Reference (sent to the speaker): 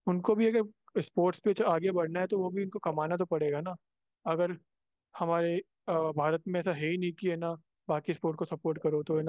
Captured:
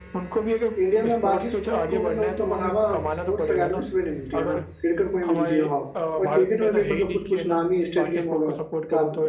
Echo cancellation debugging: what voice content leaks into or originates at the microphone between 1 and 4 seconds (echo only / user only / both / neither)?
both